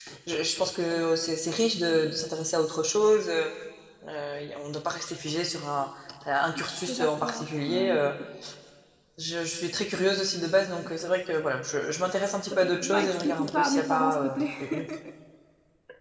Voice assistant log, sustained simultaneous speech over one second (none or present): present